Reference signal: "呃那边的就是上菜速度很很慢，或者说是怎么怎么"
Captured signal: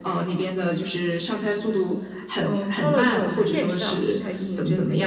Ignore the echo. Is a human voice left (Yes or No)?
Yes